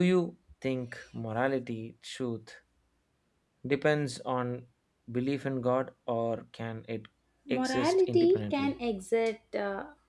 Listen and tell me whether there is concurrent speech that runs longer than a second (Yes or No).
Yes